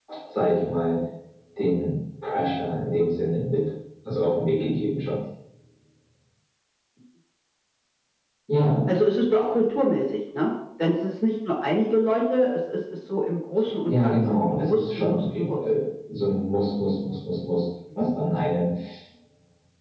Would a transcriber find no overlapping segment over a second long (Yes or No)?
No